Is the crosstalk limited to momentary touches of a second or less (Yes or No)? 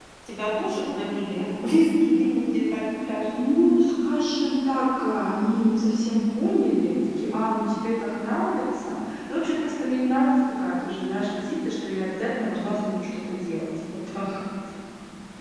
Yes